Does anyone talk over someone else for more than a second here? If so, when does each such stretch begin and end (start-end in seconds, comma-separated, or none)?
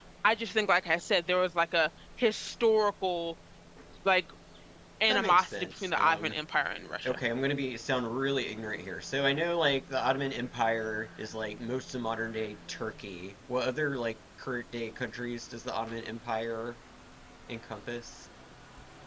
5.1-6.4